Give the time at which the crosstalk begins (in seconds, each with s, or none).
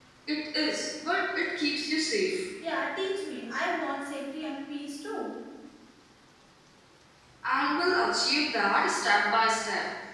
none